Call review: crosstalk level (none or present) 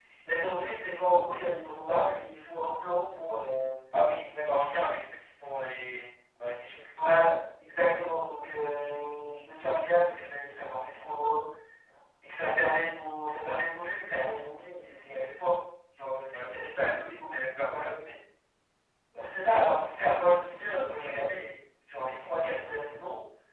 present